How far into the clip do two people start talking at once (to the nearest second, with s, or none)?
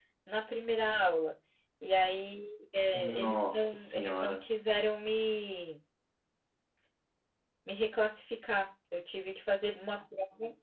3 s